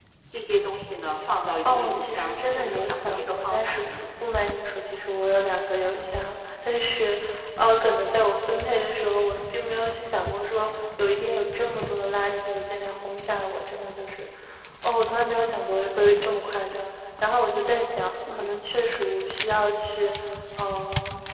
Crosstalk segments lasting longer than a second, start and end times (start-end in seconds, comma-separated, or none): 1.6-4.0